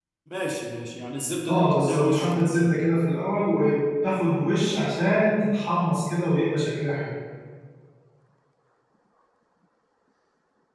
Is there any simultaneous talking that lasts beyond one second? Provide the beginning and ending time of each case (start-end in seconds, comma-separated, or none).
1.5-2.7